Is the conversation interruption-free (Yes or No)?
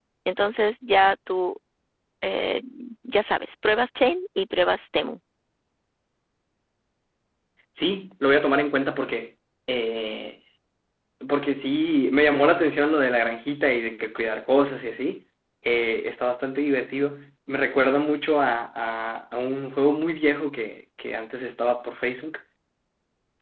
Yes